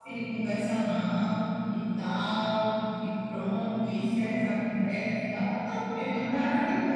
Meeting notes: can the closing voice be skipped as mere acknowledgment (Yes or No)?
No